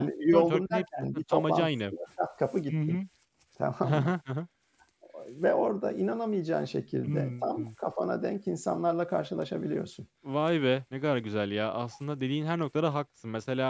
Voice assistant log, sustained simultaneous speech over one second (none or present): present